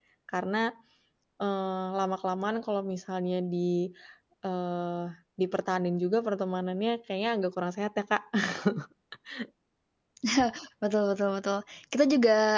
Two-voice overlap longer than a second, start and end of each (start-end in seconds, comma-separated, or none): none